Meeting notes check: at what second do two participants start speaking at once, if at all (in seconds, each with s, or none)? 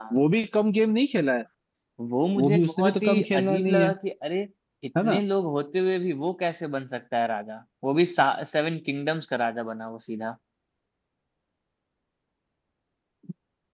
2.4 s